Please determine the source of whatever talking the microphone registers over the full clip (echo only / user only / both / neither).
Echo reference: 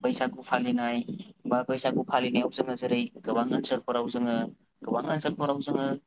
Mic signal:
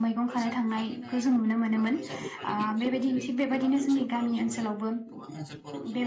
both